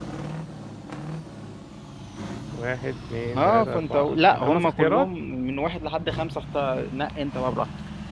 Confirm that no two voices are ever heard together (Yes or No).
No